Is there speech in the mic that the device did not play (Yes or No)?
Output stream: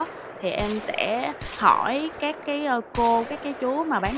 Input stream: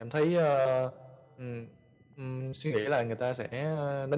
Yes